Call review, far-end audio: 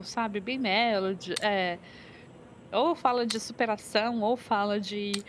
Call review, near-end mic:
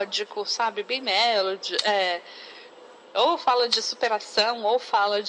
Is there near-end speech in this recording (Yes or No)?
No